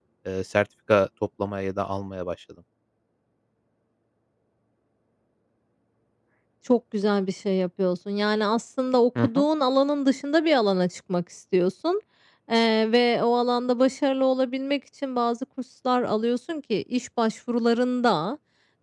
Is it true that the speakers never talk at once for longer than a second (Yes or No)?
Yes